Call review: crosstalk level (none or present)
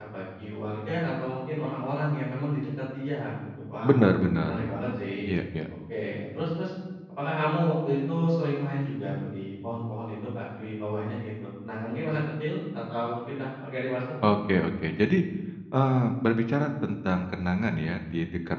none